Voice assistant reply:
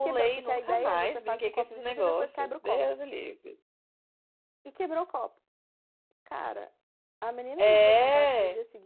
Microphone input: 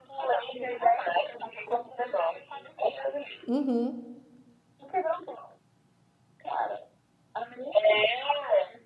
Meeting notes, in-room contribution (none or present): present